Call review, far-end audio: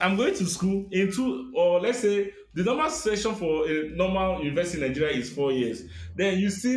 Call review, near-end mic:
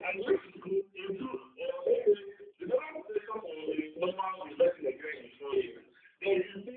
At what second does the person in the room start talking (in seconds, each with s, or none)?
none